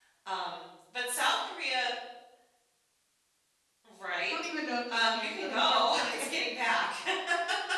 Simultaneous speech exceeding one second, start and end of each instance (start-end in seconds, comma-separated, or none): 4.9-6.2